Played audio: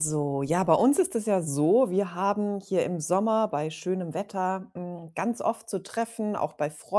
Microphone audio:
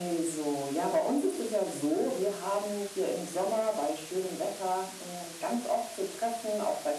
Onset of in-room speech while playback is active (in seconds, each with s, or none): none